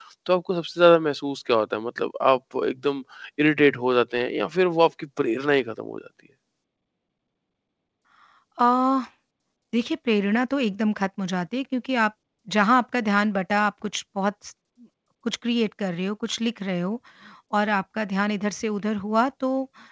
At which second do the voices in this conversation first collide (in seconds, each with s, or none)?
none